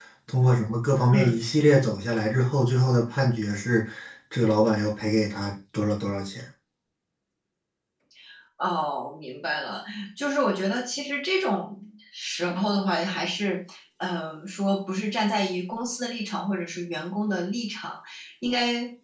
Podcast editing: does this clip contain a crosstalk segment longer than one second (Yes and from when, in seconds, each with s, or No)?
No